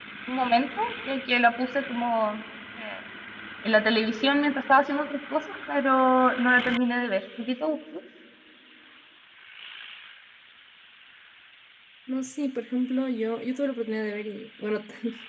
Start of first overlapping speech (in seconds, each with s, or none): none